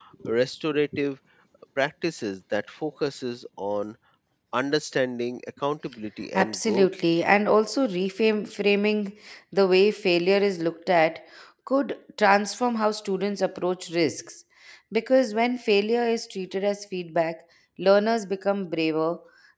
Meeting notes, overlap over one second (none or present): none